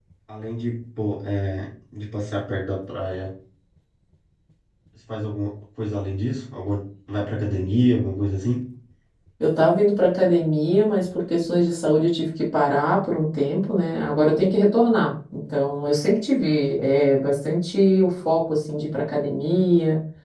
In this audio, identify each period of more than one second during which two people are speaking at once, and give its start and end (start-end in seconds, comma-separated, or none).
none